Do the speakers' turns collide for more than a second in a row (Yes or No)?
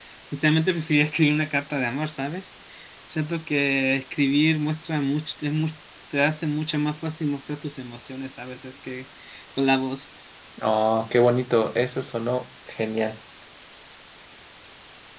No